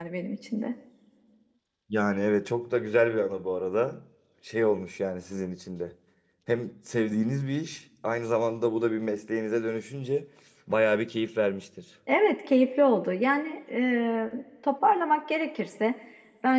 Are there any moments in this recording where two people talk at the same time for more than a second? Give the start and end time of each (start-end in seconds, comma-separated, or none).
none